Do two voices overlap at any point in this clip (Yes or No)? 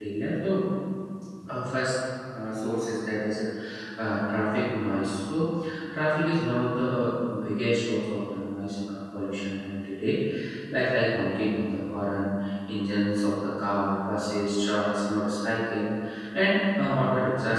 No